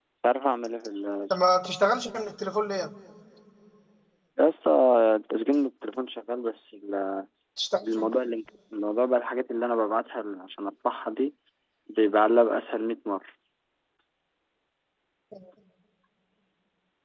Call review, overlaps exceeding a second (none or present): none